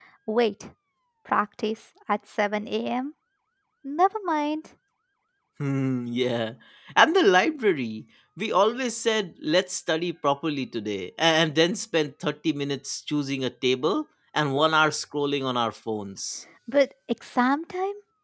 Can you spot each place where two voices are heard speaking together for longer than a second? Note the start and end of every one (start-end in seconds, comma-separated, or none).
none